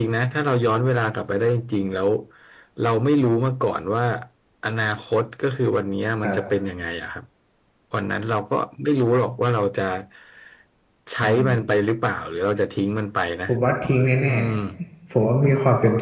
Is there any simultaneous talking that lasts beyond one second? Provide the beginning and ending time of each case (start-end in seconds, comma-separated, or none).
none